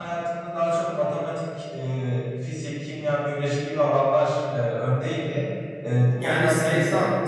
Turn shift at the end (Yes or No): Yes